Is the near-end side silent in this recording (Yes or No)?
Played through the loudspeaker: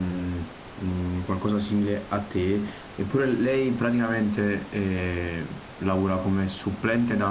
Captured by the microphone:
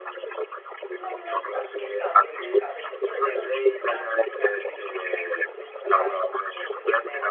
No